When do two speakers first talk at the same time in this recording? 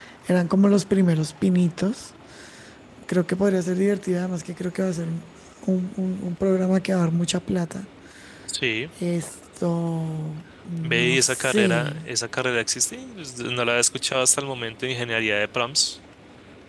11 s

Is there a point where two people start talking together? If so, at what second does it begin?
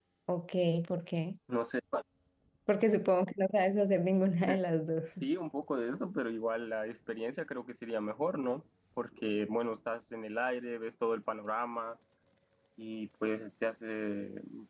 none

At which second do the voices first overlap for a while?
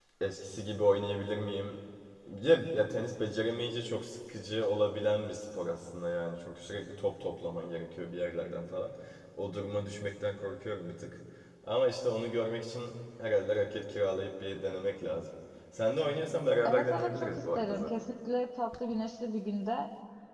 17 s

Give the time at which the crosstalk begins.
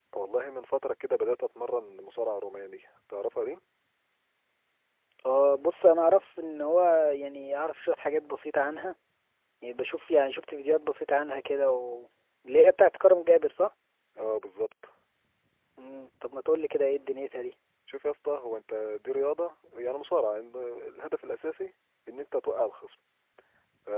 none

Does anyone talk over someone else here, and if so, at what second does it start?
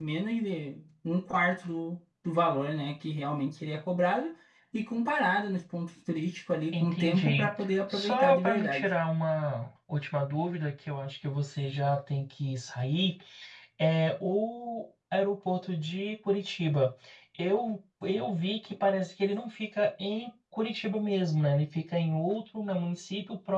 7 s

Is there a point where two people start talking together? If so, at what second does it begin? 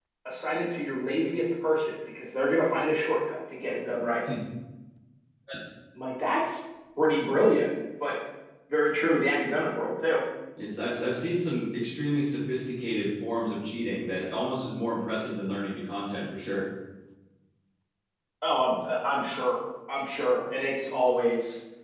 none

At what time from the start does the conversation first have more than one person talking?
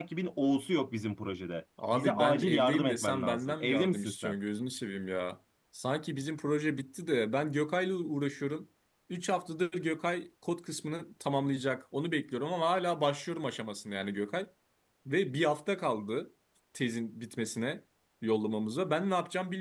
2 s

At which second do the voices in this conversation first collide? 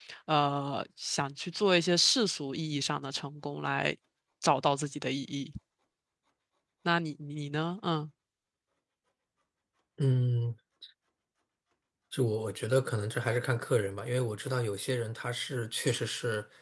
none

